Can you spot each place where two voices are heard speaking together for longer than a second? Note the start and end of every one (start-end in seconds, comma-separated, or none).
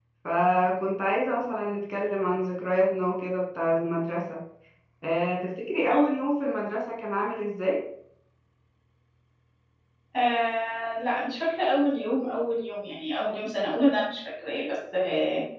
none